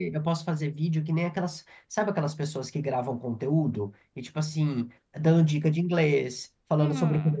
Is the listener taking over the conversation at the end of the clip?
Yes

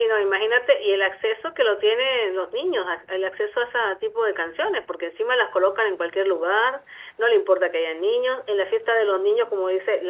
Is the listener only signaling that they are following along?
Yes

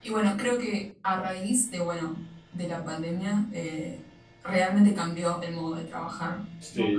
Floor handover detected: Yes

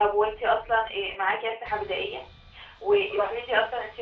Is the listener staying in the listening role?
Yes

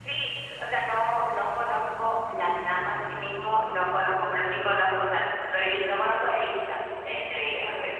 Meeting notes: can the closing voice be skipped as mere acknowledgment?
No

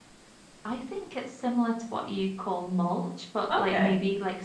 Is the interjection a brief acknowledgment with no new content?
Yes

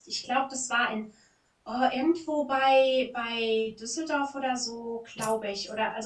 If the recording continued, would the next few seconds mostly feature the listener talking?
No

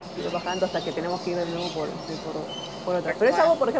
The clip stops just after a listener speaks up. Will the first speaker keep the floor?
Yes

